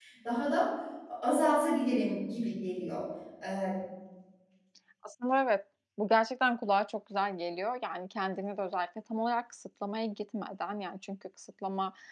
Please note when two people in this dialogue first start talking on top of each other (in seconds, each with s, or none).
none